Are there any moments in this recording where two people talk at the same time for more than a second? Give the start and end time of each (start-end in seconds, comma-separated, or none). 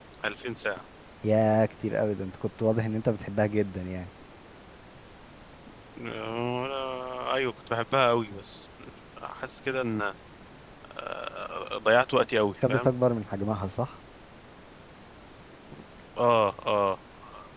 none